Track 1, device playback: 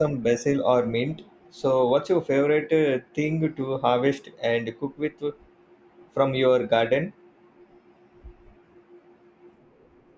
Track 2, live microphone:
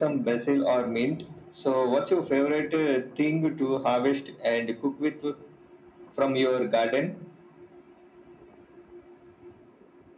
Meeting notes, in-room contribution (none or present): none